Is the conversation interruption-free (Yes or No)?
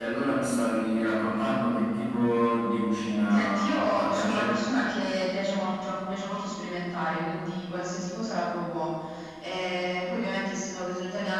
No